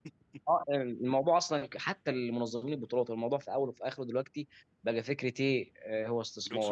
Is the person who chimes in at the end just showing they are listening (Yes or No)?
Yes